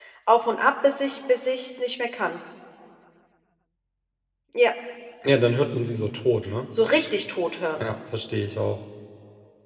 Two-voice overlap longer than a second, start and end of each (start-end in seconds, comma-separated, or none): none